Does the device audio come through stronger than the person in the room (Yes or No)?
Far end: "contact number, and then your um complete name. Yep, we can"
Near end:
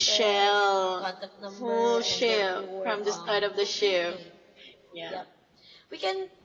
No